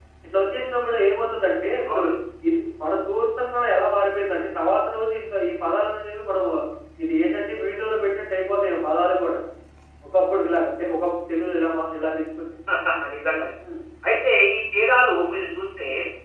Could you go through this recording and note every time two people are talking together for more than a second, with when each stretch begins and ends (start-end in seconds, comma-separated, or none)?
none